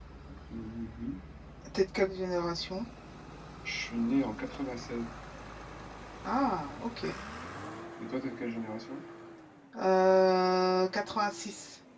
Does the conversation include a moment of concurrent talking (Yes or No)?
No